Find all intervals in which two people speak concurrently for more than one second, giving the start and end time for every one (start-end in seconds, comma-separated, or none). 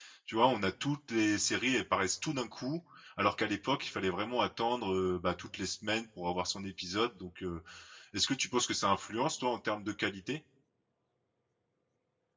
none